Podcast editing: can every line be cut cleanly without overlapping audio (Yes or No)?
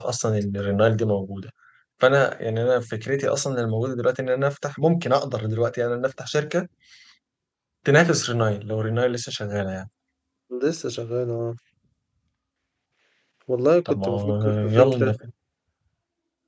No